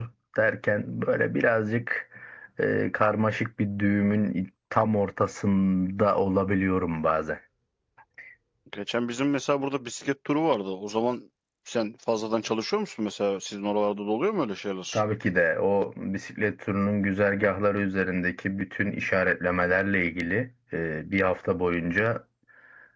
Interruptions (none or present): none